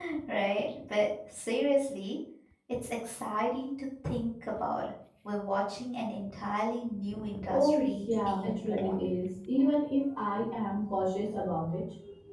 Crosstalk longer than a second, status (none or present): present